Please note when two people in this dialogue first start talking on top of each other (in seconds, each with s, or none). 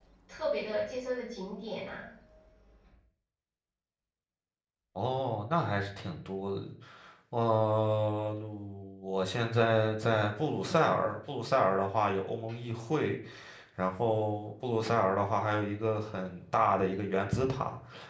none